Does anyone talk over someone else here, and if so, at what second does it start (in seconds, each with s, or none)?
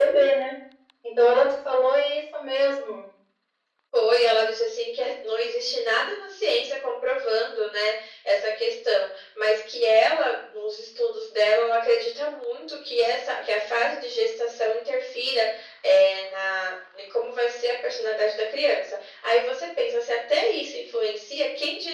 none